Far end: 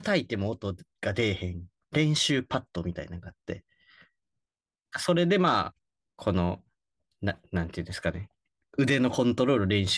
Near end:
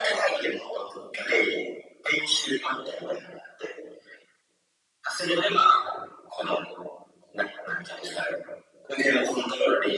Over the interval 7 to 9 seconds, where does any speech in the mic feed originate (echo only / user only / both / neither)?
echo only